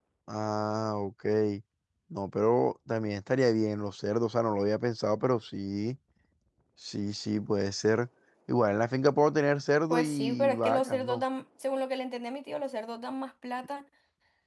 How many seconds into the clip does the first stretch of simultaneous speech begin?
9.9 s

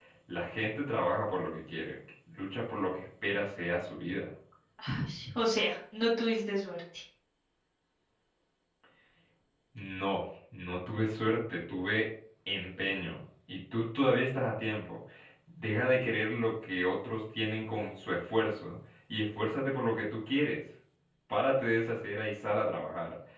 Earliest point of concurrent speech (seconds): none

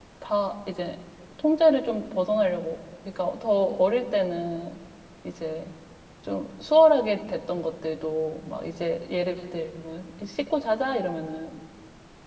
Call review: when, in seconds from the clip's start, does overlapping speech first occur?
none

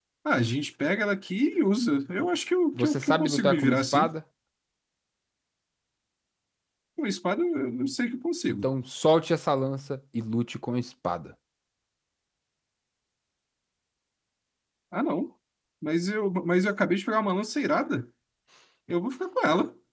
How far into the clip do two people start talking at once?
2.7 s

